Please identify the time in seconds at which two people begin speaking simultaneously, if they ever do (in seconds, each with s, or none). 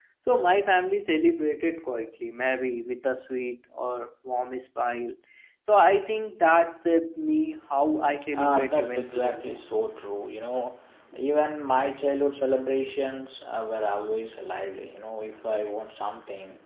8.2 s